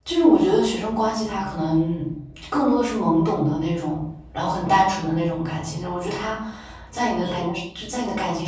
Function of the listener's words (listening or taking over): listening